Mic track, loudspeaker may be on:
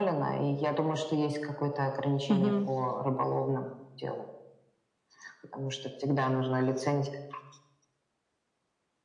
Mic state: both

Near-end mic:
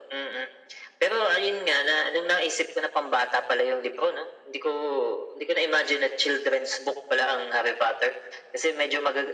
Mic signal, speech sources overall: echo only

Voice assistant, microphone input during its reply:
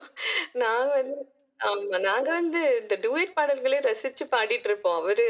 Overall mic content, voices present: echo only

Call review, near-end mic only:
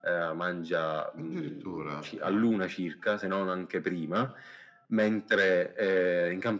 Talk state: both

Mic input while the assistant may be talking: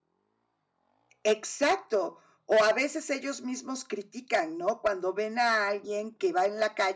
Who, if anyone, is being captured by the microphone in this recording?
user only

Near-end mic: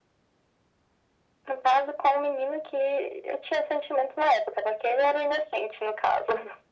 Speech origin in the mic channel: echo only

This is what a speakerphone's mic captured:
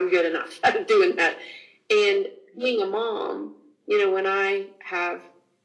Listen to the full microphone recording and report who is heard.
echo only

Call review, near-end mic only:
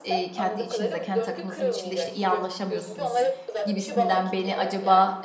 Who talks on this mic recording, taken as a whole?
both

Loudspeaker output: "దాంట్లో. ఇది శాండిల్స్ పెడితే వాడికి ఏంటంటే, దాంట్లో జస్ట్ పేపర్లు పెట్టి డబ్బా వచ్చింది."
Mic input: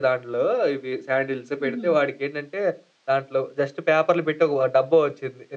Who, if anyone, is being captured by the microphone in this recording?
both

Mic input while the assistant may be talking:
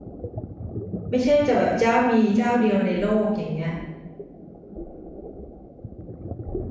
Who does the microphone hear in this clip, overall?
user only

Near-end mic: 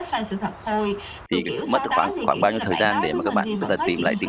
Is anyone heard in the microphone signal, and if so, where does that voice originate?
both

